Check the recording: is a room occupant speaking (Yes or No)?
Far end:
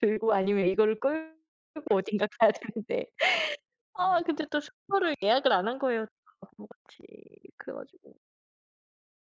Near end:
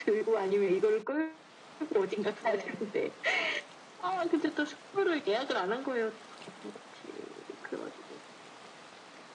Yes